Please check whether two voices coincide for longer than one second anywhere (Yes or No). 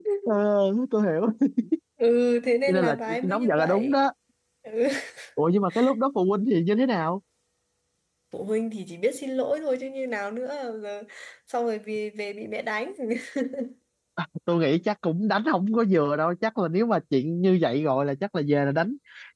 Yes